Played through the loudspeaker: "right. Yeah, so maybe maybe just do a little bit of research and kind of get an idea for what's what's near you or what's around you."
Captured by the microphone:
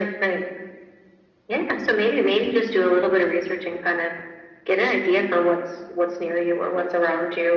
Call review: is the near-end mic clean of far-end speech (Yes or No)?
No